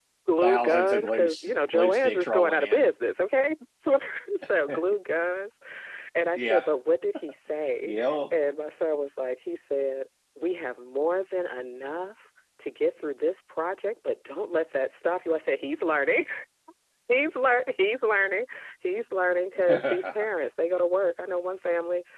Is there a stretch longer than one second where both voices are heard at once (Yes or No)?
Yes